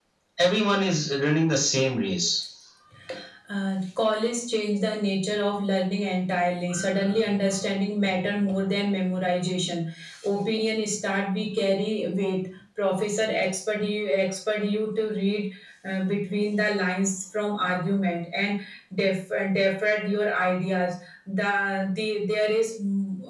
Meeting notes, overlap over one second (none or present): none